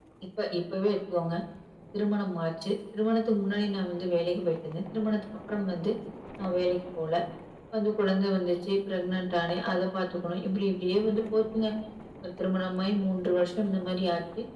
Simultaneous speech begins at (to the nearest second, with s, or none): none